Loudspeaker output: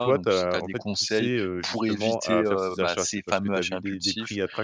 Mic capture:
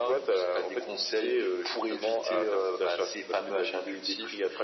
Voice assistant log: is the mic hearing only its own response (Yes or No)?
Yes